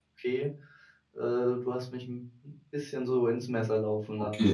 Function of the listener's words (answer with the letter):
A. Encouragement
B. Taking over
B